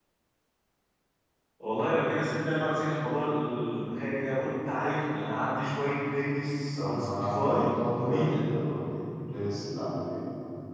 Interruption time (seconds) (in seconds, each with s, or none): 6.8 s